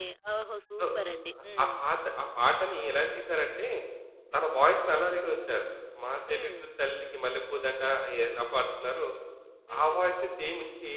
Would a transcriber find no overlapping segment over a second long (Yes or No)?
Yes